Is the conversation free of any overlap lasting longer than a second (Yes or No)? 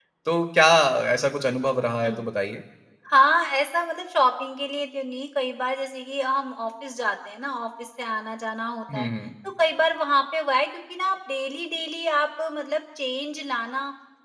Yes